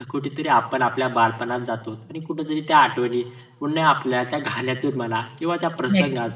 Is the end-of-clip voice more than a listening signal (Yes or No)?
No